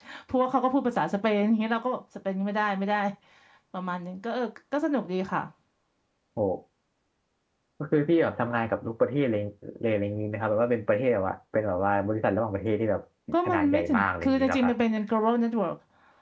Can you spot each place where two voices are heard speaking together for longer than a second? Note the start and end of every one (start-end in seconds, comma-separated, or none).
13.4-14.7